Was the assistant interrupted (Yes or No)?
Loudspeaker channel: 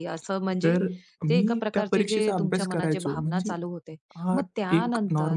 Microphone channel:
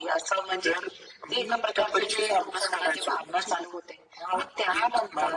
No